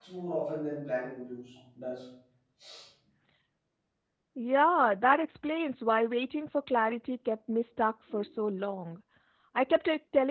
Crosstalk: none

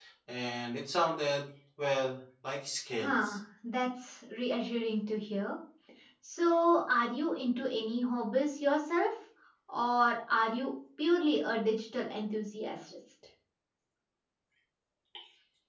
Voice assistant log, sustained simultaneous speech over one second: none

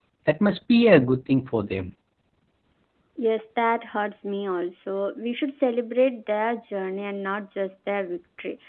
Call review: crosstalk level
none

